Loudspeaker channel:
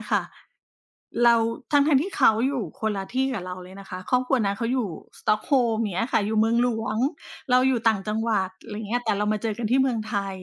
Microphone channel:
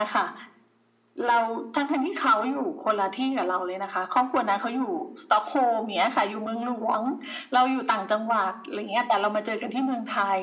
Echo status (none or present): present